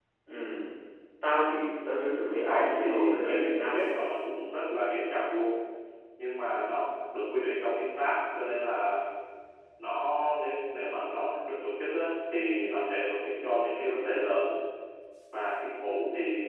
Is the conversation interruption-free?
No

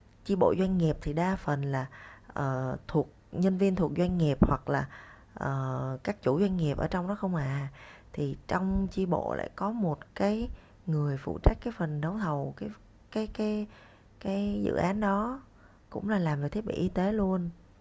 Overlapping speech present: No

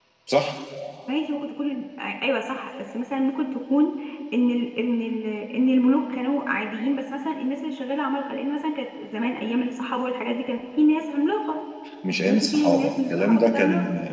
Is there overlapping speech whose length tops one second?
Yes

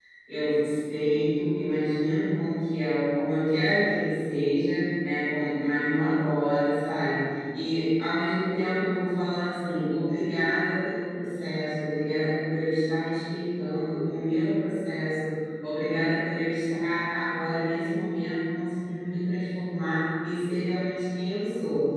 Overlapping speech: No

